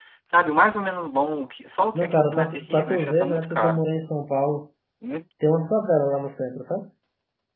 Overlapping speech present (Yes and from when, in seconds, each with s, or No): Yes, from 1.9 s